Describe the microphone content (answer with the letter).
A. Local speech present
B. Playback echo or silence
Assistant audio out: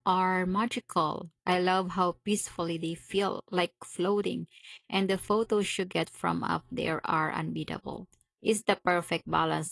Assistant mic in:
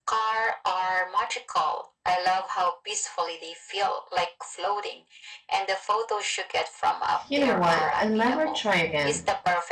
A